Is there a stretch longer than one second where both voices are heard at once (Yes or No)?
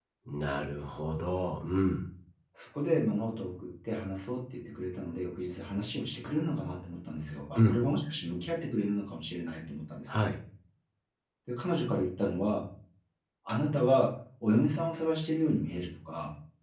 No